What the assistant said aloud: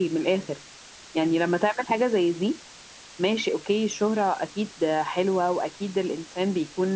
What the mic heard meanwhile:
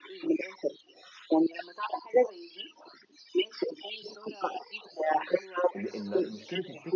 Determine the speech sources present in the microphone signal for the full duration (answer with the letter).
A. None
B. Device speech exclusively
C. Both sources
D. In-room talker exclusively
C